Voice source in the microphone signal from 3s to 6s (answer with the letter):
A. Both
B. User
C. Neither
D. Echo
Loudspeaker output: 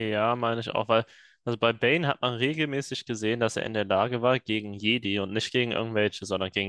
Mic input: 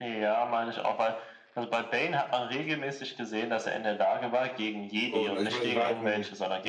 A